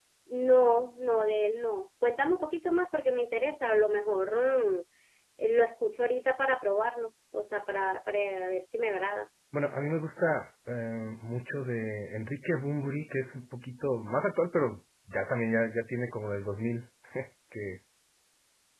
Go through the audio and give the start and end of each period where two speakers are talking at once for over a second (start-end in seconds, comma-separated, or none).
none